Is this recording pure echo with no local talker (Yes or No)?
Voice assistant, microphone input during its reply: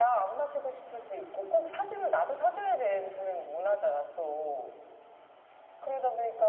Yes